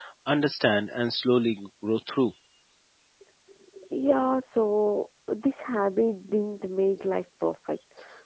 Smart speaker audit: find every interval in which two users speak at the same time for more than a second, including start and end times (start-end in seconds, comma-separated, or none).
none